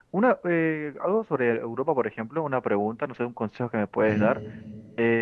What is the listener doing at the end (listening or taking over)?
listening